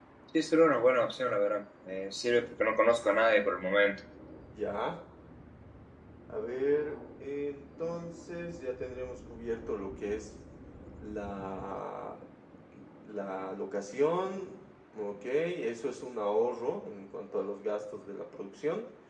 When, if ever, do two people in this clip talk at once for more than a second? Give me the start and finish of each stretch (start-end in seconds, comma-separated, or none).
none